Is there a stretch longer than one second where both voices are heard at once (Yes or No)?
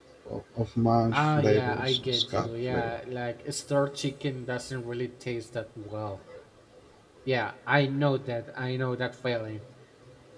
Yes